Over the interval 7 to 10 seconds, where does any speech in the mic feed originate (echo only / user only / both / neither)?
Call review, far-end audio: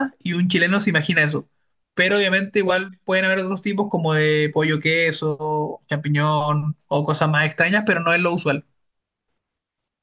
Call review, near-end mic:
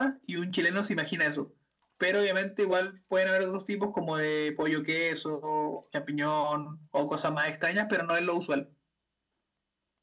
echo only